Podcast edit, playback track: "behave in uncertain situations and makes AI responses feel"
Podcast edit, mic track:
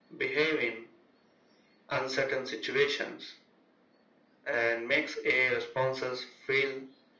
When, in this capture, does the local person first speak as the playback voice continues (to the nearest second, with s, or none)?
none